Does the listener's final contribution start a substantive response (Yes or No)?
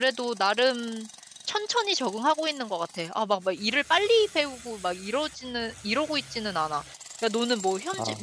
No